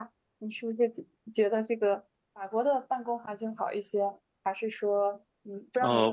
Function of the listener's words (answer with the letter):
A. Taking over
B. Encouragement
A